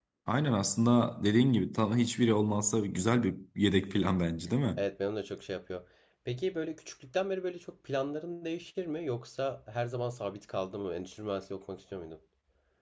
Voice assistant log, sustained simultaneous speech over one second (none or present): none